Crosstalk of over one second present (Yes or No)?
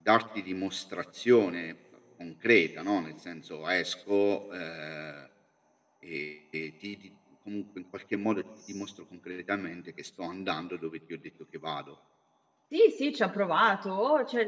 No